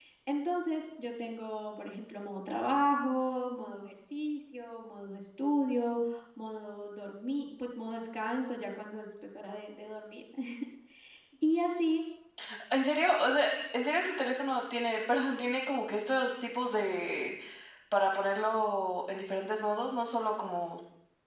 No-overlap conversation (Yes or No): Yes